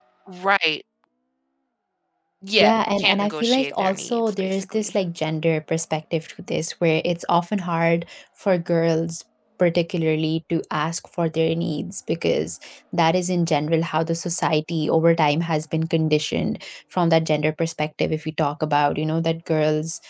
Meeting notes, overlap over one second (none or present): present